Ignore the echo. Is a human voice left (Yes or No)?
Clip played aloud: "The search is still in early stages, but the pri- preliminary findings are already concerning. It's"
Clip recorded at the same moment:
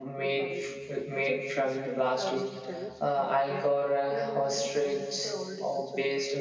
Yes